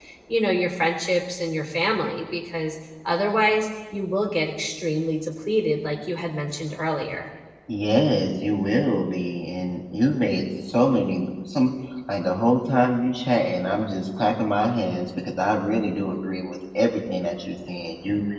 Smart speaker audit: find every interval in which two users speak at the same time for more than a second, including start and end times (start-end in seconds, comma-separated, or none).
none